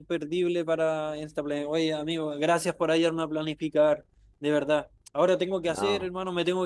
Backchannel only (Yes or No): Yes